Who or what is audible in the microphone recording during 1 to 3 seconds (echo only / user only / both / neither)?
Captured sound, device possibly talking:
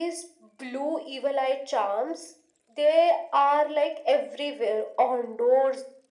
echo only